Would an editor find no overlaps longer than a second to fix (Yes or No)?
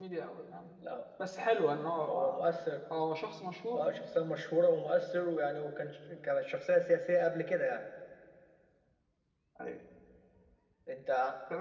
Yes